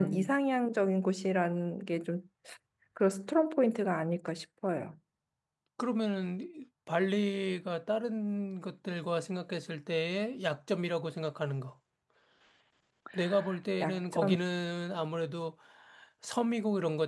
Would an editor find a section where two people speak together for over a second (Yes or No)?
No